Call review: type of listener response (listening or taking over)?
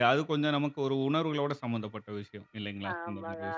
taking over